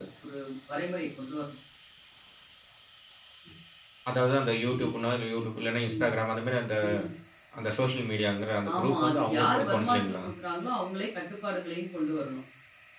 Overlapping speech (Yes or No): Yes